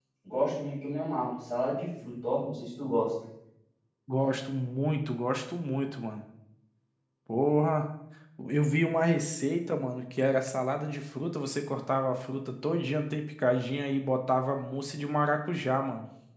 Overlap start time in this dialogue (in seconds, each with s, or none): none